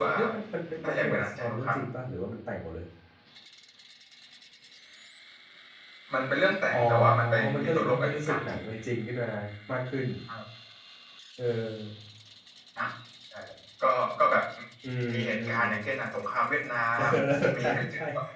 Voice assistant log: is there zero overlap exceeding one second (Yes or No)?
No